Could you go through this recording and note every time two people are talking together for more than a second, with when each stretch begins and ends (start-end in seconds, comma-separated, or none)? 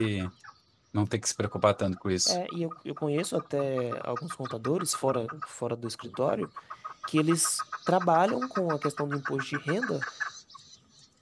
none